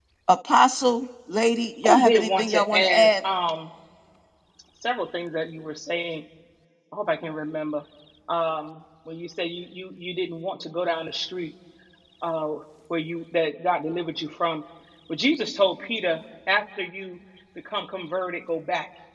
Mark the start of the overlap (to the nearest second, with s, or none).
2 s